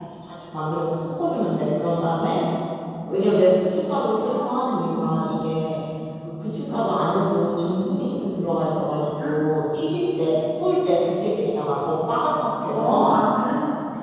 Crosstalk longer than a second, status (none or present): none